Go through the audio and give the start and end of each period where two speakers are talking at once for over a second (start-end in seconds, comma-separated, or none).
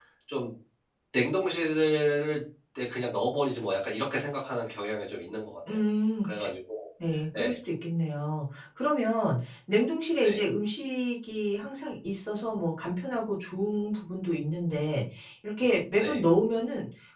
none